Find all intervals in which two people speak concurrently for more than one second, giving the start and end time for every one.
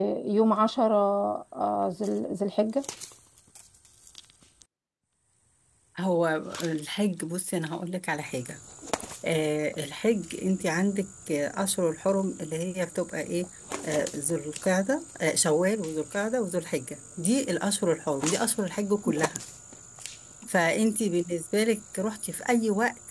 none

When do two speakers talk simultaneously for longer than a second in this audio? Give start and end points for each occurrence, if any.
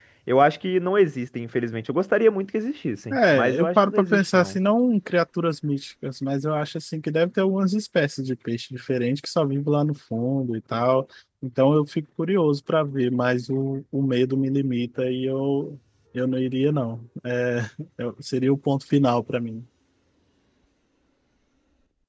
3.1-4.6

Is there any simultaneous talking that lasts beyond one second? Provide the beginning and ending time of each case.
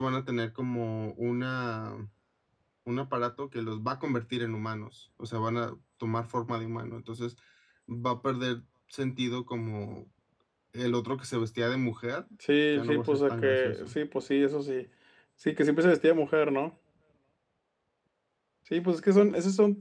12.7-13.9

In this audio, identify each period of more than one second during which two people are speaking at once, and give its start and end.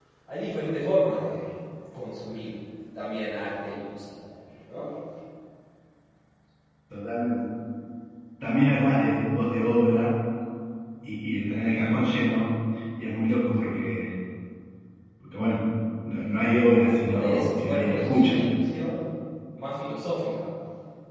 17.1-18.4

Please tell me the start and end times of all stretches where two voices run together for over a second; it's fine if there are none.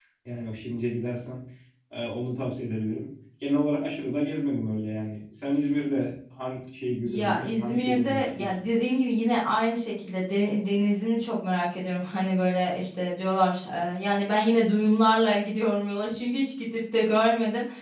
7.0-8.6

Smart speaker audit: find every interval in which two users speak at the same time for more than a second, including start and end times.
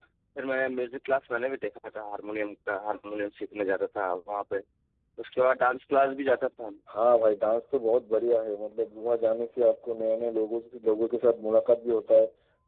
none

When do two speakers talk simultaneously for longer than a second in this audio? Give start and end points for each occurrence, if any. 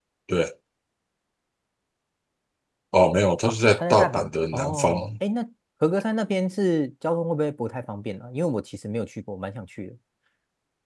3.5-5.0

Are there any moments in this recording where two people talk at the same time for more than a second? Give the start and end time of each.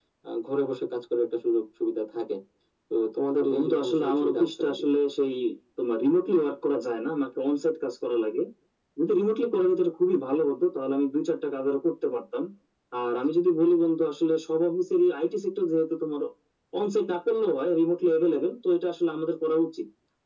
3.4-4.8

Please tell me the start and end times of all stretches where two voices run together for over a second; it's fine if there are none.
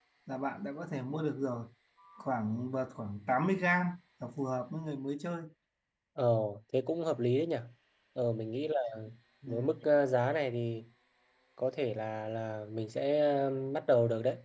none

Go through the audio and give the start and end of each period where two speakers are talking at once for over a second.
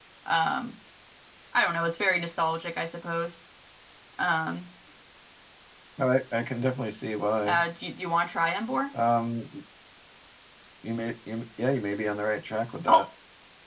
none

